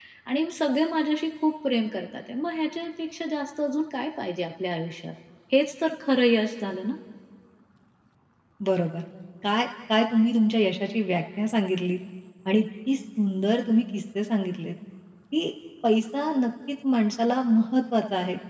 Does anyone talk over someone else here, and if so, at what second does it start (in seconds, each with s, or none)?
none